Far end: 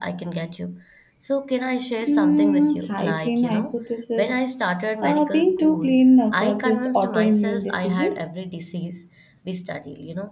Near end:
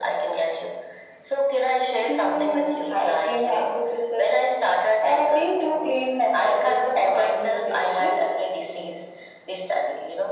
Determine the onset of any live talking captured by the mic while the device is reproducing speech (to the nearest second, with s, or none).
none